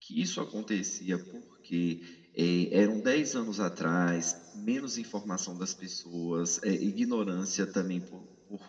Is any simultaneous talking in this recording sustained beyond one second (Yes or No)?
No